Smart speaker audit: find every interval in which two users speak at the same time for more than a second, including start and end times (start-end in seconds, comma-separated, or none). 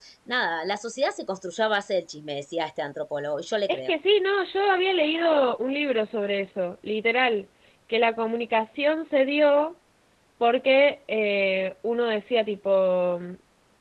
none